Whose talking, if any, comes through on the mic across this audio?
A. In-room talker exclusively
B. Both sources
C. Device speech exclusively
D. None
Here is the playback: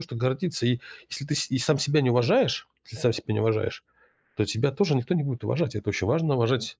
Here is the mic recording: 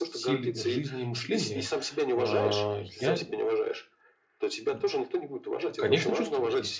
B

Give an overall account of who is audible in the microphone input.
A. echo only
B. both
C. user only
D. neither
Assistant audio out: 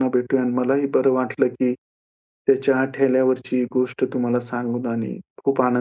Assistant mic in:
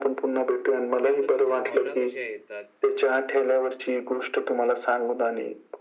B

